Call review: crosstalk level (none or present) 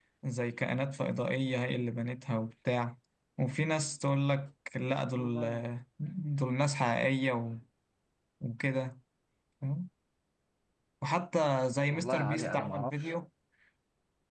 present